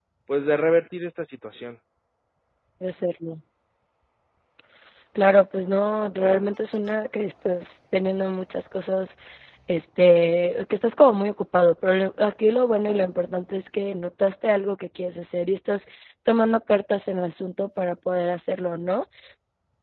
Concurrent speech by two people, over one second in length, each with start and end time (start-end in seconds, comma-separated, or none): none